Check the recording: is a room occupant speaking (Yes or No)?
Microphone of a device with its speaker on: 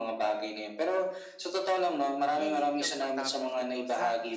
Yes